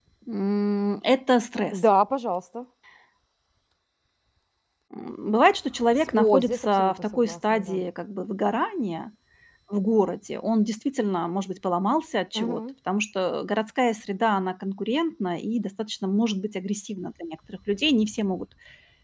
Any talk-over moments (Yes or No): Yes